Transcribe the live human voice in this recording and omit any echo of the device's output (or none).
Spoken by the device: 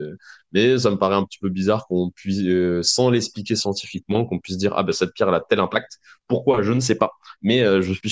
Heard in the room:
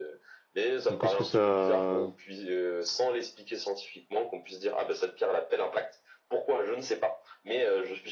Ou qu'est-ce que ça